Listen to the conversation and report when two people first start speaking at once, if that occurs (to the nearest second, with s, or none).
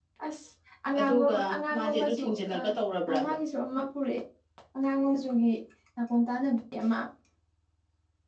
1 s